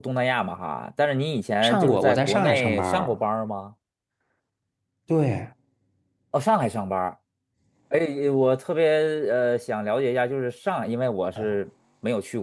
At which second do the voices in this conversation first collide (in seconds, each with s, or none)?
1.6 s